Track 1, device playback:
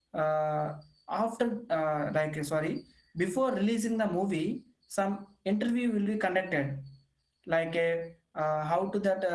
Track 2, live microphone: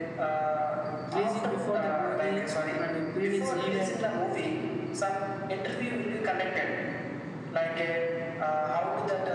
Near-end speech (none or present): present